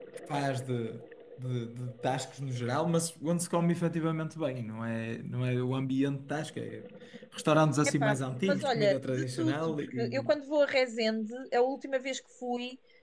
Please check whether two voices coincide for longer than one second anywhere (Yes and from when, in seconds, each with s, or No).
Yes, from 8.0 s